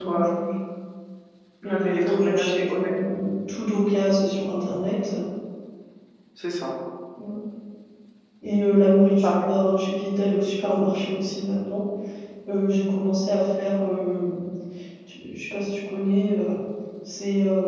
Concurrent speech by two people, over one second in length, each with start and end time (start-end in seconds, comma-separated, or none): 1.6-3.2